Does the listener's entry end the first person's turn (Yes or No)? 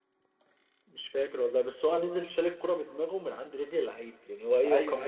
Yes